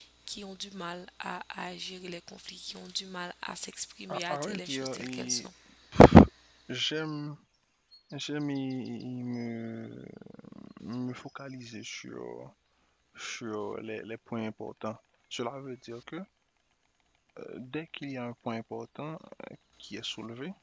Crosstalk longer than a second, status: present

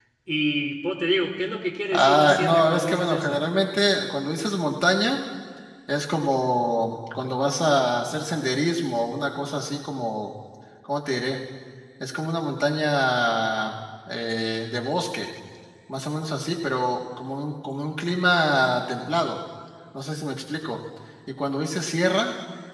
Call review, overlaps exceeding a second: present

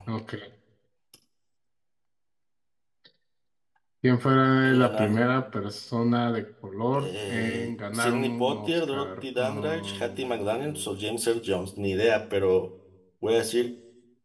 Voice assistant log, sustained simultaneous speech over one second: present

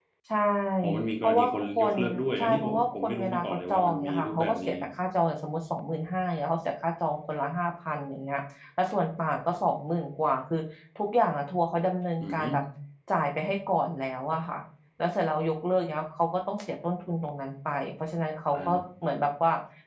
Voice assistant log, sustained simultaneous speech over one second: present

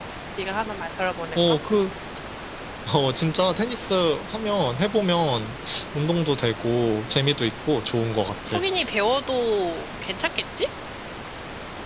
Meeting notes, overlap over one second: none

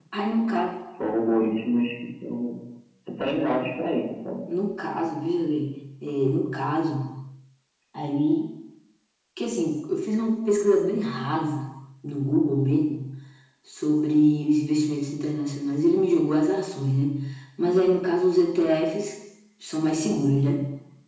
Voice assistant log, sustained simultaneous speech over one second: none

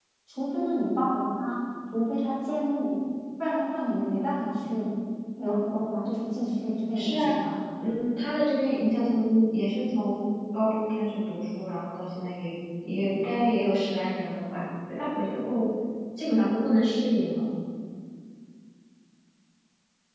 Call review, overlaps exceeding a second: none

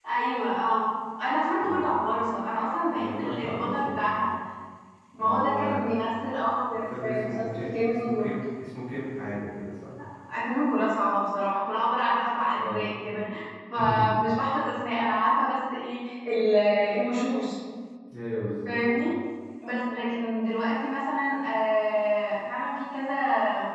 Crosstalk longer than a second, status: present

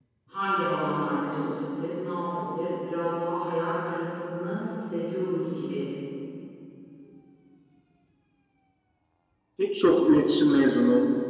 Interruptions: none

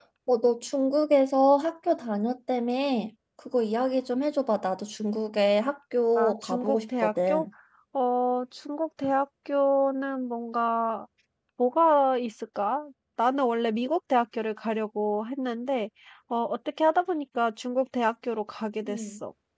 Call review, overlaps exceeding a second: present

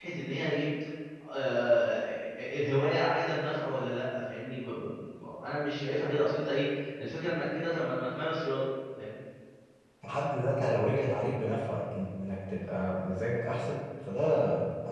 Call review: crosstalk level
none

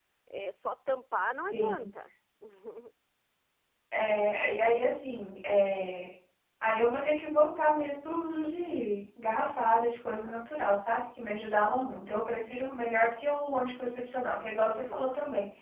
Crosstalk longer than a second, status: none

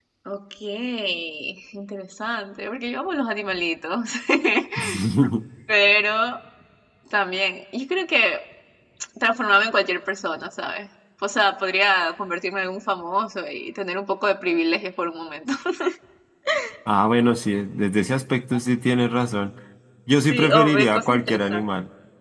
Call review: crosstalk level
present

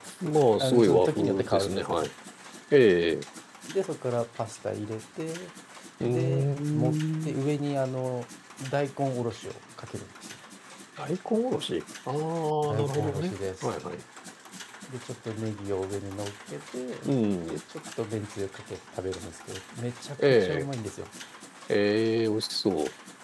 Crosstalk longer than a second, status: present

